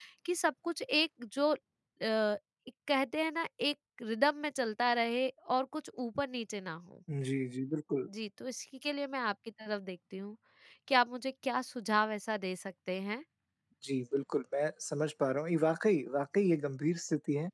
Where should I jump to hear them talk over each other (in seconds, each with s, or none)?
none